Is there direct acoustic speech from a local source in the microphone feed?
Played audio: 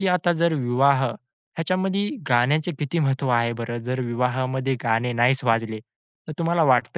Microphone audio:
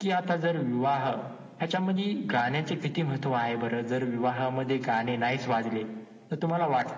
No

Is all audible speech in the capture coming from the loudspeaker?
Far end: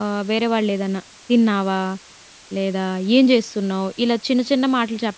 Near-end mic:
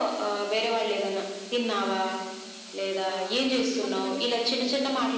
No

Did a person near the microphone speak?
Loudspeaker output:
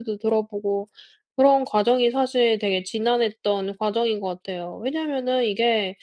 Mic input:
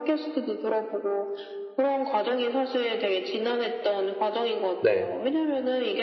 Yes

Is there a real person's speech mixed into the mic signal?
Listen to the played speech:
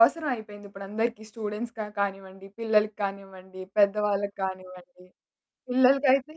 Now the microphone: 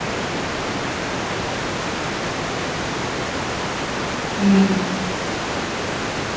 Yes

